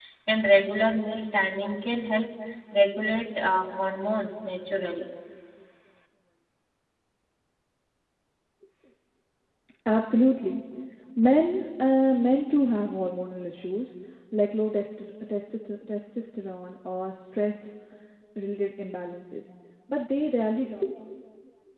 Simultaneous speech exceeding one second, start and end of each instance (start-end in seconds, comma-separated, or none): none